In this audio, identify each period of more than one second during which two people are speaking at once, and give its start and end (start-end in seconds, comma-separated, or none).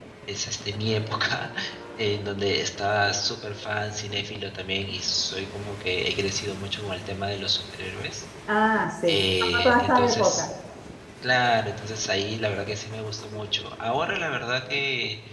9.1-10.5